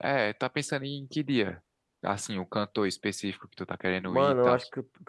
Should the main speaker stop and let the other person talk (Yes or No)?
Yes